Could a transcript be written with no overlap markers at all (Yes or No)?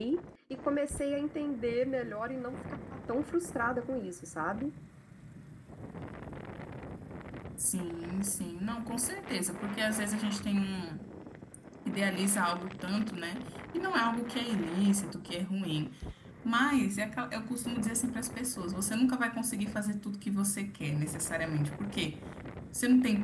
Yes